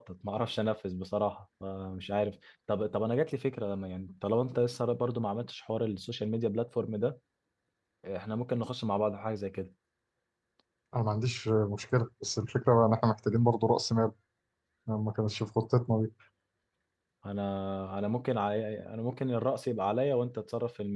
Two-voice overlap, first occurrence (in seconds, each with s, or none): none